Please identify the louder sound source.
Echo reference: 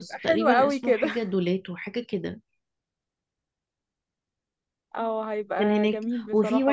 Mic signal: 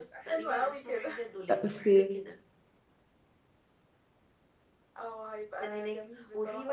user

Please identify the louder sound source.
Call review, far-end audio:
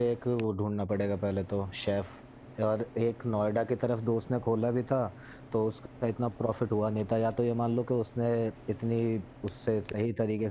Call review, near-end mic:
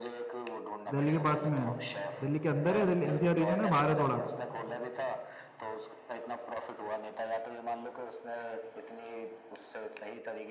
user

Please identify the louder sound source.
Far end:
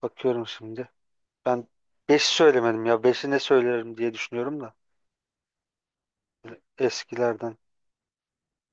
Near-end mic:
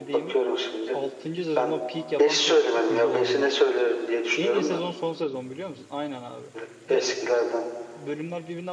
echo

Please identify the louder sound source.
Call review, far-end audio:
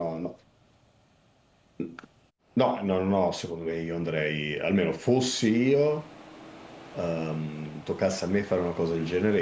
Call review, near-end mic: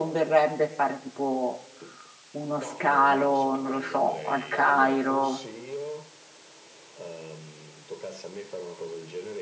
user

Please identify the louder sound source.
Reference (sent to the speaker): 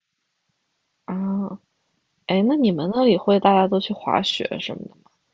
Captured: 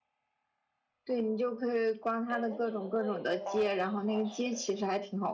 user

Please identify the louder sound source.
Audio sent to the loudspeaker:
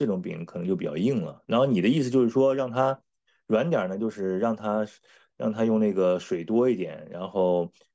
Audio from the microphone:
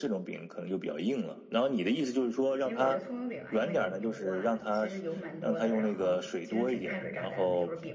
echo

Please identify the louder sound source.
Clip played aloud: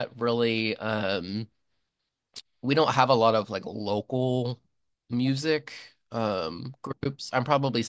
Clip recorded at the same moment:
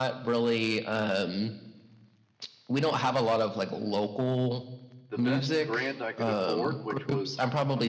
echo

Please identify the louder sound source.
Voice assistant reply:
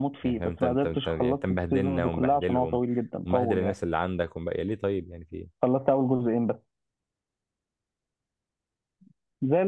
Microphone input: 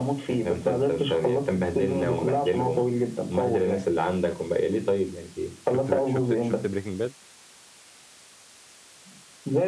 echo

